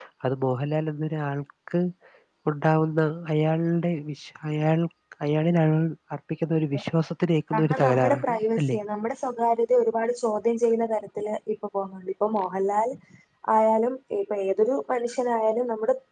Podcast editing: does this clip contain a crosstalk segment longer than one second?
Yes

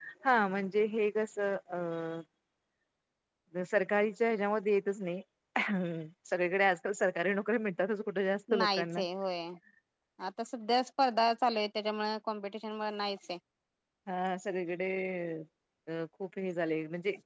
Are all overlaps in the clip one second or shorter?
Yes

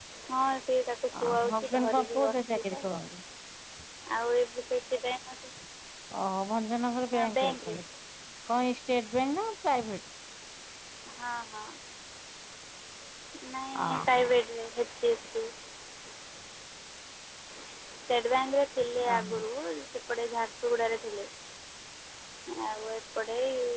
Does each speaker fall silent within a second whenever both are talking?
No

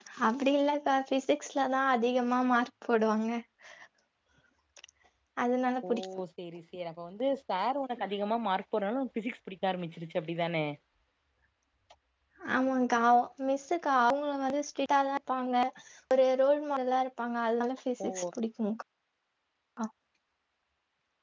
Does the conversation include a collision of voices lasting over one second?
No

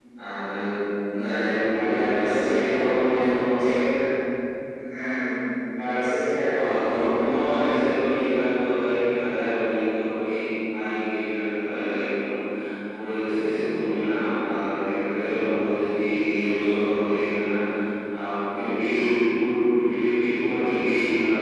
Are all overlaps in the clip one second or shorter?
No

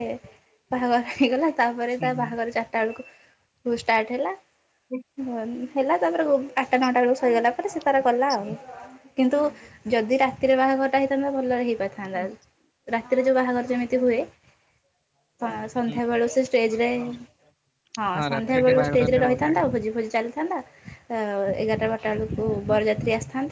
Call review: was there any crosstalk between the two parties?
Yes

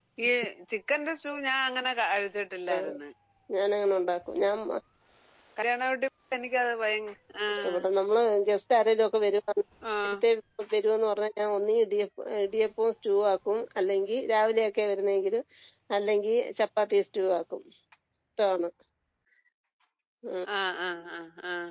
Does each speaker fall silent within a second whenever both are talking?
Yes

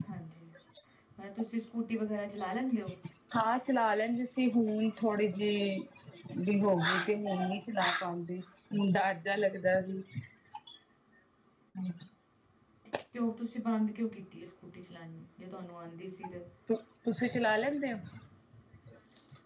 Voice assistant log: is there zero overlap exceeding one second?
Yes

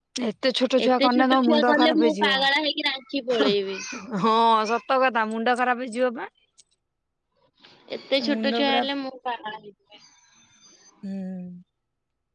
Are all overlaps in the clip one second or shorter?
No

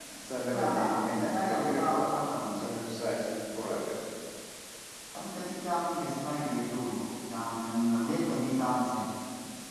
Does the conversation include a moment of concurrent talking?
Yes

